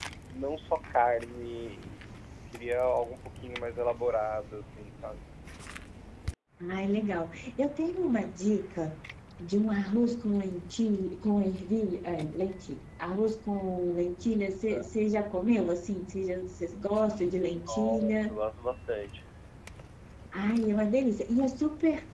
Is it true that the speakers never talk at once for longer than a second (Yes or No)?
Yes